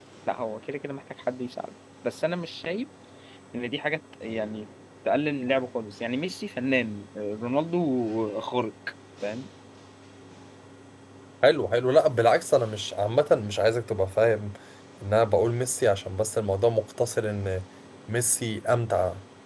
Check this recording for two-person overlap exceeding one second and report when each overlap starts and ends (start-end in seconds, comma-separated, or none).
none